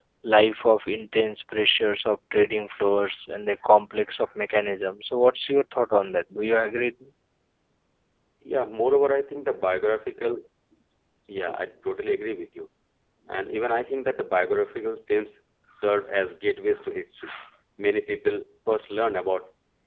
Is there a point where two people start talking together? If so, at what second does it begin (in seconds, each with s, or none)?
none